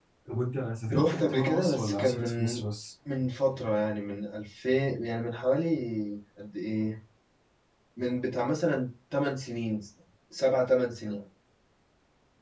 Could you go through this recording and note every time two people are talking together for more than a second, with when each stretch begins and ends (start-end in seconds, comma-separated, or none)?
0.9-2.6